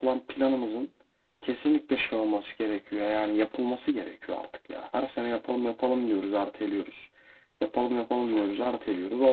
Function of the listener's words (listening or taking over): listening